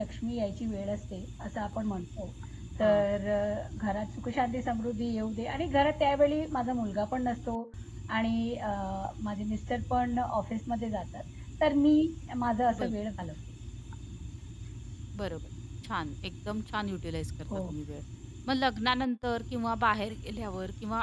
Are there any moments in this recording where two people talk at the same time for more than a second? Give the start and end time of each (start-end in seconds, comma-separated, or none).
none